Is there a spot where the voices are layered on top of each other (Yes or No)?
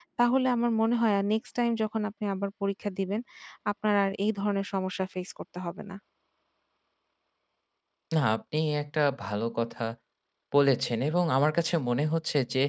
No